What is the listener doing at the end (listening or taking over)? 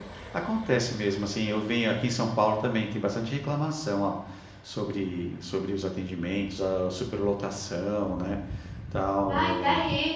taking over